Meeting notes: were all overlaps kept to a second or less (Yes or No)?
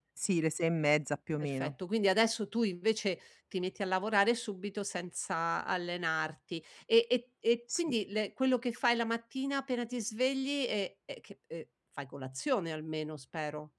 Yes